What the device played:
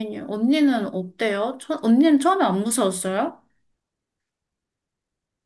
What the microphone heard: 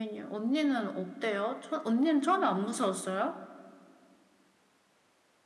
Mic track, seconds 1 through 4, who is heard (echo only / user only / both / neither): echo only